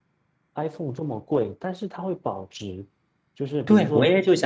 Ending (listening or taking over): taking over